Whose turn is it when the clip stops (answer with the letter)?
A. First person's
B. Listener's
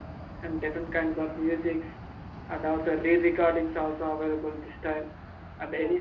A